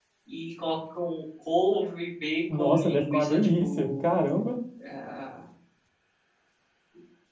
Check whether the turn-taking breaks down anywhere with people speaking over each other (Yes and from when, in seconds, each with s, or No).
Yes, from 2.5 s